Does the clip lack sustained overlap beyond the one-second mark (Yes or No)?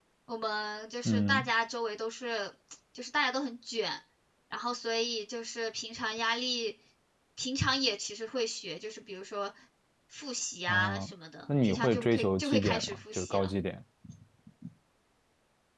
No